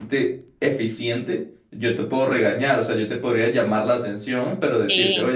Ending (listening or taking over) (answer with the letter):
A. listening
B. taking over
A